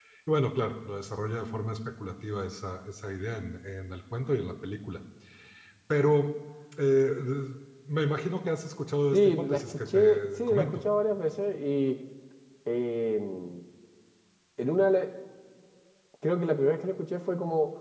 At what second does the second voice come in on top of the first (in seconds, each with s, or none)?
9.1 s